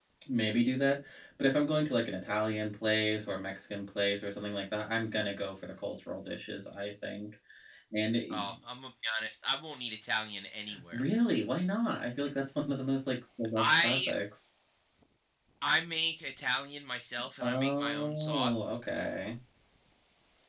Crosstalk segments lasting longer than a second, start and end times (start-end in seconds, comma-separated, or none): 17.4-18.7